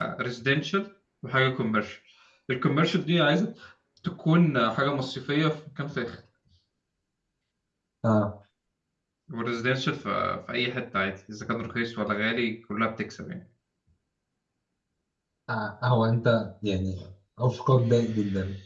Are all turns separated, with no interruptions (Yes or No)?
Yes